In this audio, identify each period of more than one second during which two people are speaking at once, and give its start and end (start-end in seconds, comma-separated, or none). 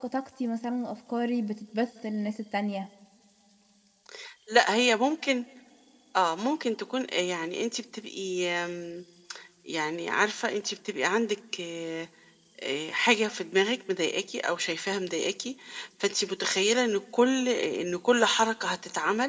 none